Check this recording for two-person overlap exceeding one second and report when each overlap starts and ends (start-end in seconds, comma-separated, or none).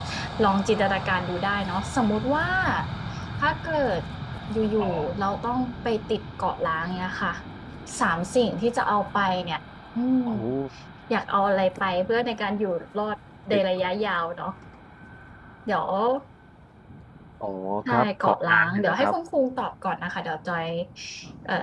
17.9-19.1